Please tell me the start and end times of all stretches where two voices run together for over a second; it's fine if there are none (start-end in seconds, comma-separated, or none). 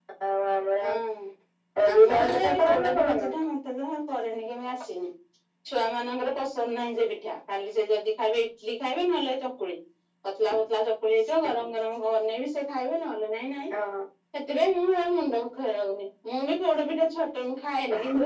1.9-3.3